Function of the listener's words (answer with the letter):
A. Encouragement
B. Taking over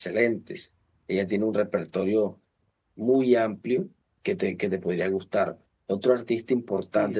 B